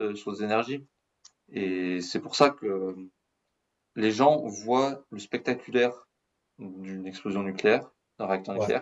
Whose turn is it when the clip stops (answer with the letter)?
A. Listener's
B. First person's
B